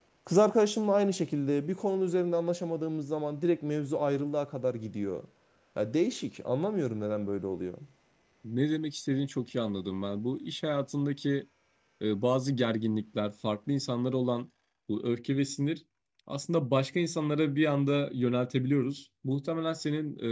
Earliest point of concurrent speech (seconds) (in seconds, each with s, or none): none